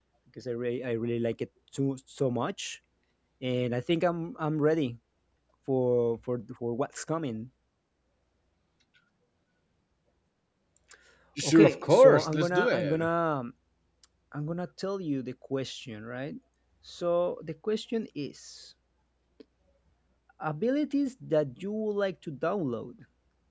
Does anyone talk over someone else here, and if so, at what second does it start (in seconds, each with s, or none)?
11.4 s